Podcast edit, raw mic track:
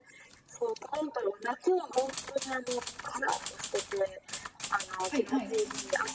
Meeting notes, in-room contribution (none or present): present